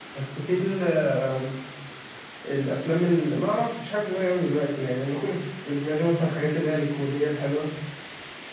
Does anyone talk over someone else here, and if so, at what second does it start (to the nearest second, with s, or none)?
none